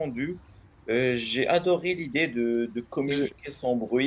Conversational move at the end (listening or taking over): listening